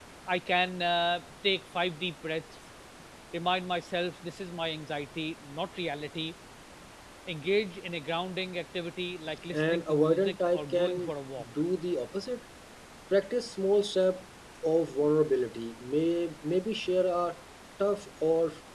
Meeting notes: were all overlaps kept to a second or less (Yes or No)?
No